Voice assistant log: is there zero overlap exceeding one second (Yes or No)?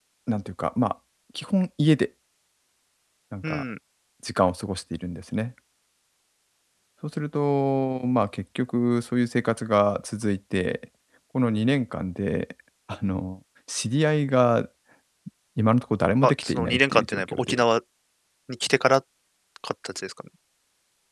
No